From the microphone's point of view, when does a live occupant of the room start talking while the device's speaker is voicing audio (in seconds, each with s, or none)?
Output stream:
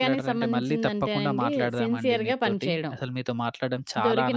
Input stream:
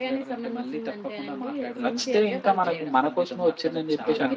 1.9 s